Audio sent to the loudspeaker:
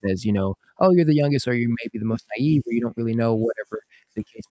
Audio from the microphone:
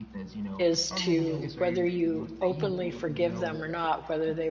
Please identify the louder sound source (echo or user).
user